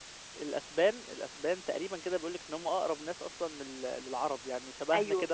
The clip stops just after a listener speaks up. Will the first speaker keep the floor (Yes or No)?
Yes